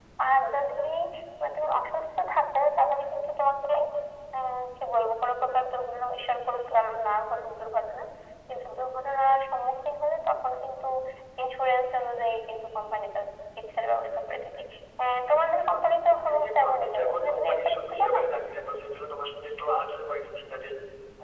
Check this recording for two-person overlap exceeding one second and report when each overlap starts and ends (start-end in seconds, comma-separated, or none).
16.2-18.2